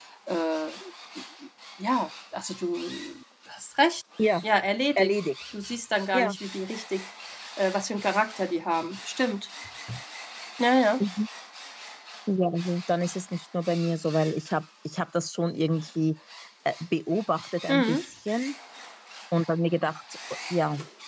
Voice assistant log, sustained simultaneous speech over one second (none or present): none